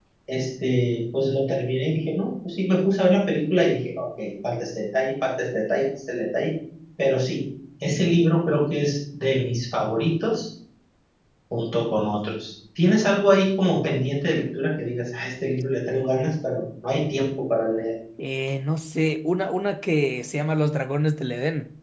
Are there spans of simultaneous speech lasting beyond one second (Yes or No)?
No